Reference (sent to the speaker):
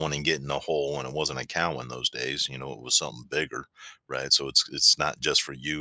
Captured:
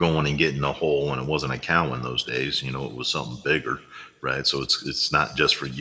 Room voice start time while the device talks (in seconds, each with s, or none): none